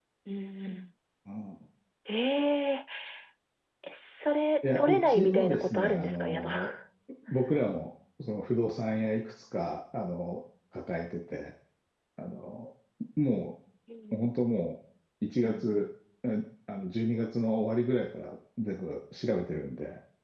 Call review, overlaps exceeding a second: present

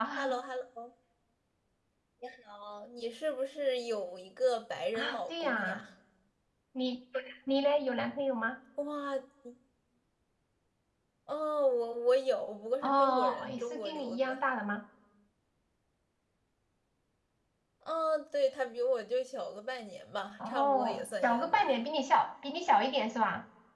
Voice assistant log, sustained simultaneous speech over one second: present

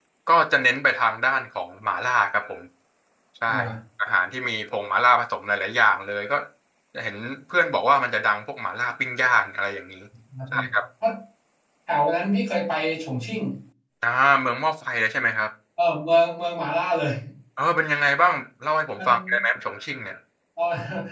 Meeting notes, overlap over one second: none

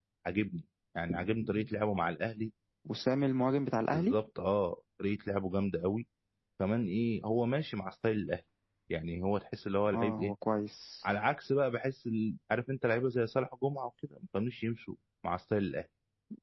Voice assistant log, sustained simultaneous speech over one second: none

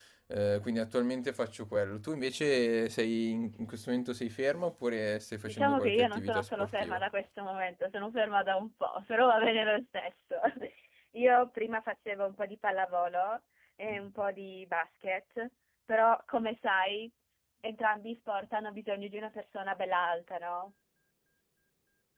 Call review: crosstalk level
present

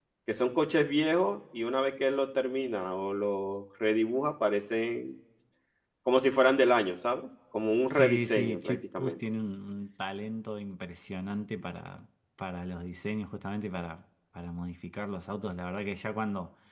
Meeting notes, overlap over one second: present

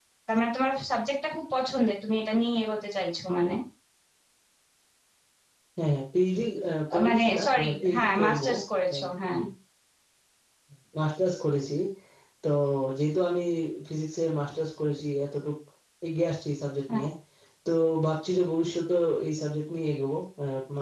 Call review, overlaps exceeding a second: present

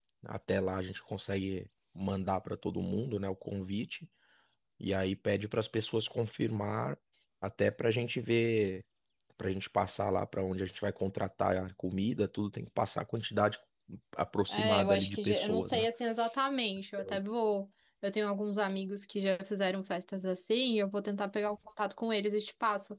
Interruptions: present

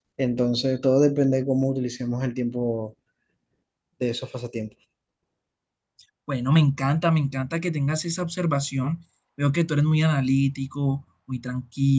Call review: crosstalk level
none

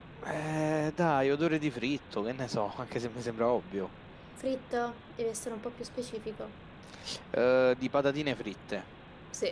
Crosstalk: none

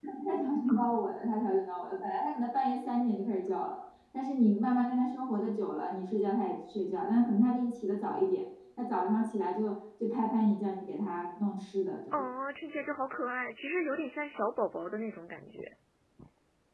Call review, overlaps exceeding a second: none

